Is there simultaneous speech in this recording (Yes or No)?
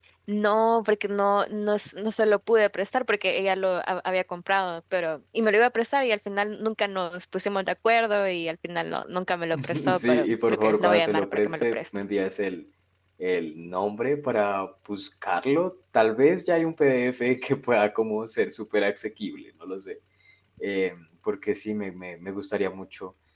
Yes